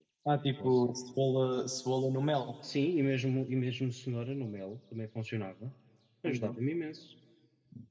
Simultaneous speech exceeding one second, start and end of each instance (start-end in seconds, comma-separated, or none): none